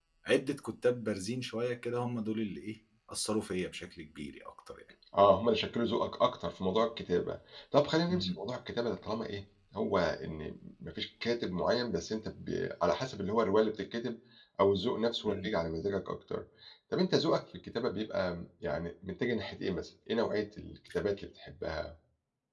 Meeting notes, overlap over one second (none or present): none